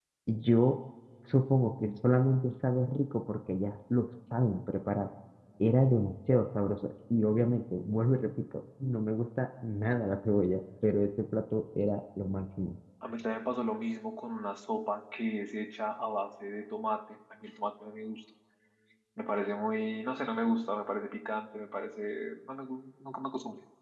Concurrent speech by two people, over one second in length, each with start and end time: none

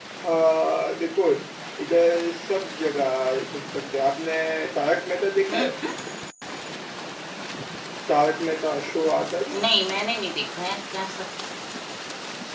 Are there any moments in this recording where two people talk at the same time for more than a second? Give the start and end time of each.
none

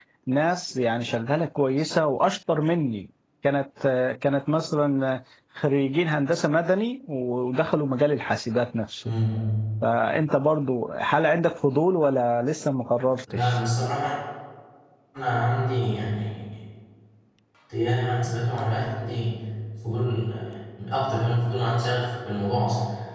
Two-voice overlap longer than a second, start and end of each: none

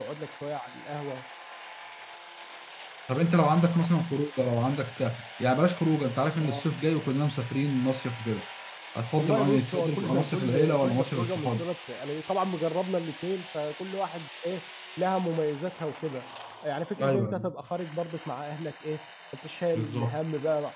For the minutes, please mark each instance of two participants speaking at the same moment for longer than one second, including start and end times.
9.2-11.7

